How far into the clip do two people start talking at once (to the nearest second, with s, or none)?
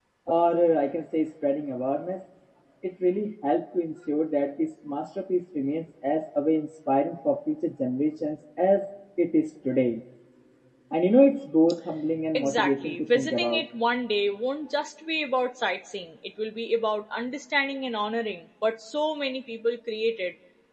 12 s